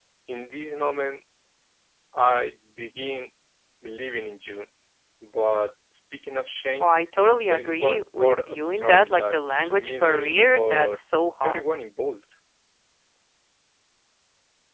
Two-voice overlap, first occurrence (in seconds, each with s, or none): 7.5 s